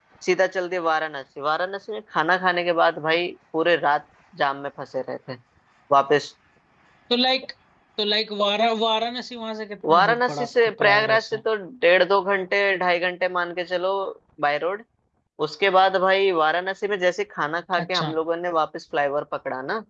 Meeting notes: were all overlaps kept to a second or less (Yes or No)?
No